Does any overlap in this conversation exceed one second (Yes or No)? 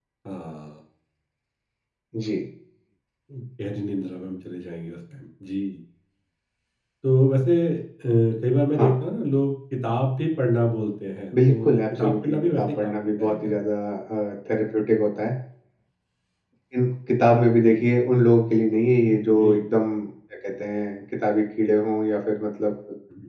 Yes